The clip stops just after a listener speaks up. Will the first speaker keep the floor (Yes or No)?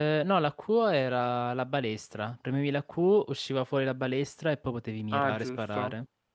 No